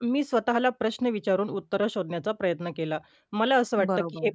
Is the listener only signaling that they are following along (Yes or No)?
Yes